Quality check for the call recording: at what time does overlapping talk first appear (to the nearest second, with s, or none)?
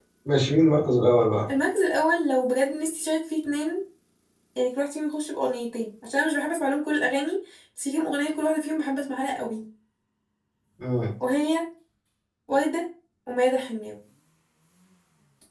none